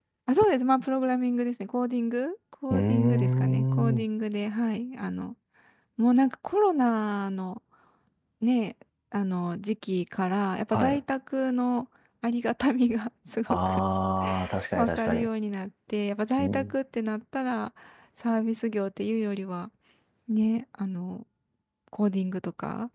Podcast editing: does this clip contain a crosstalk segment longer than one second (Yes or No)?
Yes